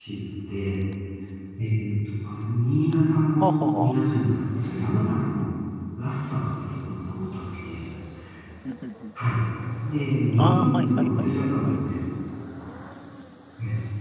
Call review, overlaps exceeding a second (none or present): present